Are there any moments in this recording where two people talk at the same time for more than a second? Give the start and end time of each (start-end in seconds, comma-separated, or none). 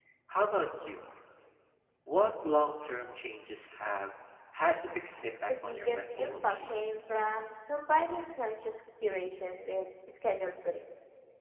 5.5-6.7